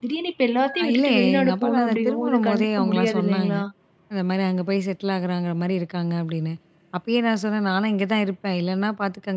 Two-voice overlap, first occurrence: 1 s

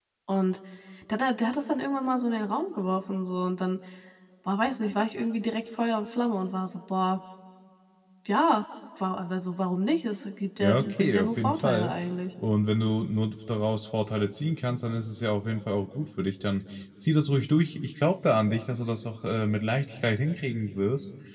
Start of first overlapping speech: 11 s

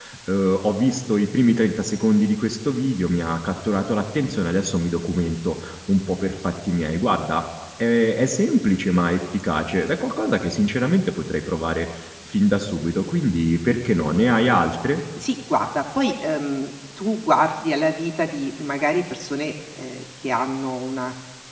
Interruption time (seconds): none

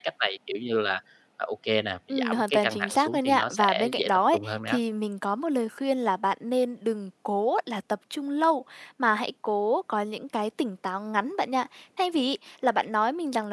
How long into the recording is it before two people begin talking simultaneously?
2 s

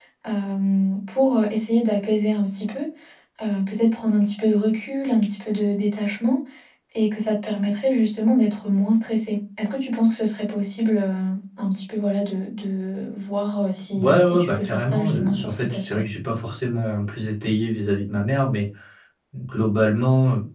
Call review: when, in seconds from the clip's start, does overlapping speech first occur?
14 s

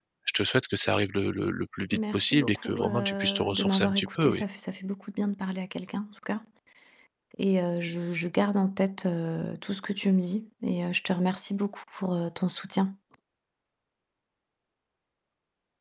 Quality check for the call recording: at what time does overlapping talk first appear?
2 s

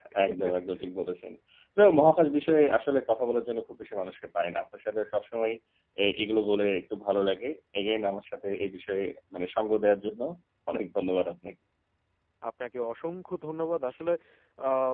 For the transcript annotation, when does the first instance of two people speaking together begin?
none

